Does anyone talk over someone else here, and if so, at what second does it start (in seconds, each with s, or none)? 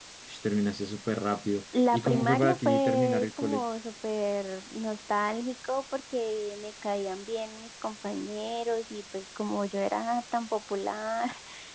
1.7 s